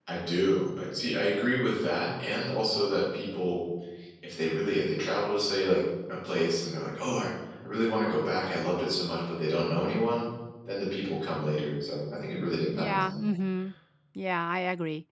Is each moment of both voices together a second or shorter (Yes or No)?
Yes